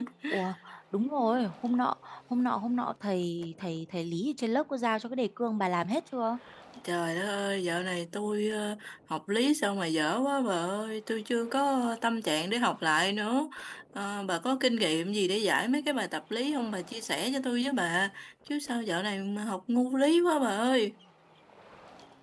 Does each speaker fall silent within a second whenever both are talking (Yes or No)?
Yes